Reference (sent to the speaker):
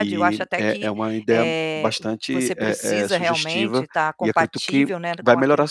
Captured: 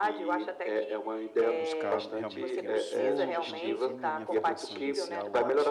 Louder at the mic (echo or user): echo